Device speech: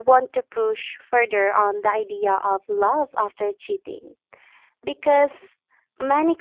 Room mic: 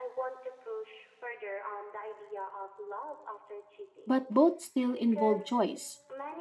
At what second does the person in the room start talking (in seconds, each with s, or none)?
4.0 s